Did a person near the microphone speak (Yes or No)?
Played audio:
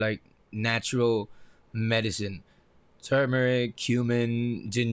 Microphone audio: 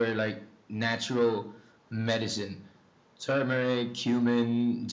No